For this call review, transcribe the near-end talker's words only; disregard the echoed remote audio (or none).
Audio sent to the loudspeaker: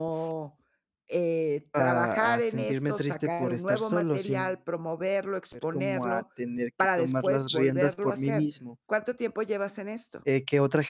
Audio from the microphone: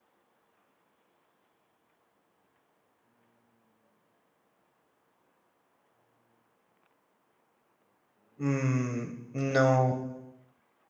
mm, no